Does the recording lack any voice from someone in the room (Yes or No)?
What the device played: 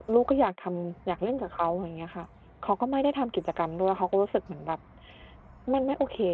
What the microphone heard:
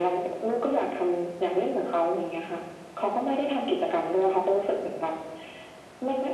Yes